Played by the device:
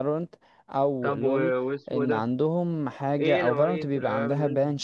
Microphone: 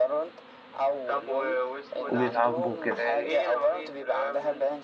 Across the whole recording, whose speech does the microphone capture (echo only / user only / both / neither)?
both